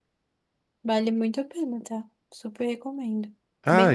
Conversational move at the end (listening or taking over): taking over